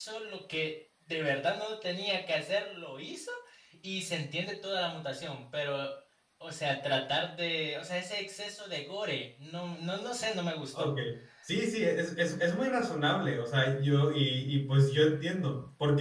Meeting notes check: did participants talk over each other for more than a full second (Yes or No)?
No